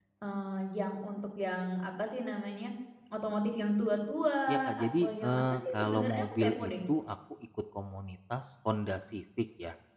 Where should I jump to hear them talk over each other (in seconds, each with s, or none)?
4.5 s